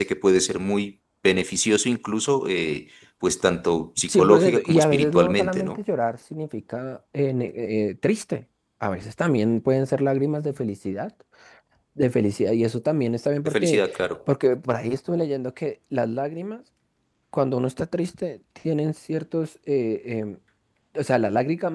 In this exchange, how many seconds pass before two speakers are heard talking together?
4.1 s

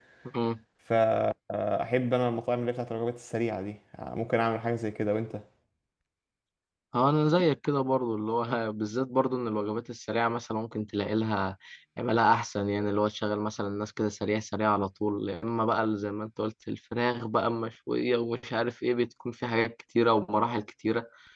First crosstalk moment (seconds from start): none

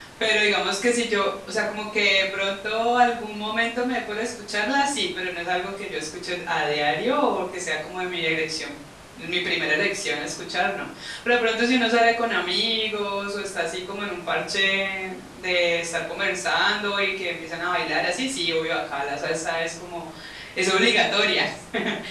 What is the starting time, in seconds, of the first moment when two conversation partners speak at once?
none

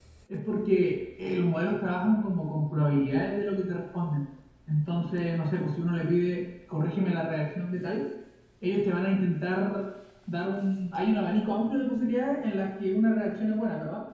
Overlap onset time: none

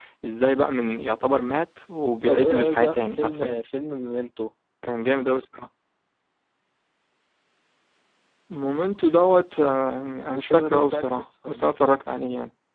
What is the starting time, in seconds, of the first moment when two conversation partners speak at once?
2.2 s

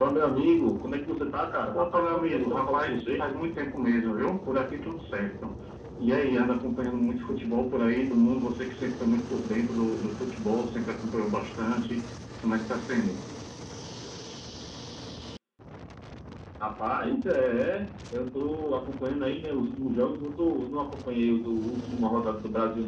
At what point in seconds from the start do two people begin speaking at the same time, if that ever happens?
1.7 s

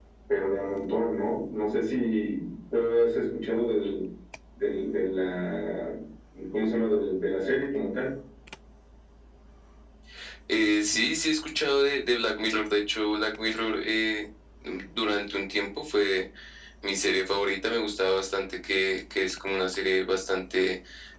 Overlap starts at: none

